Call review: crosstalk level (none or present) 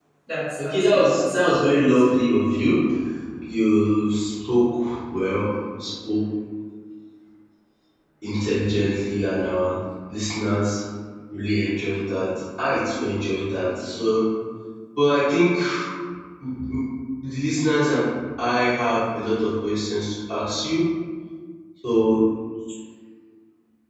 present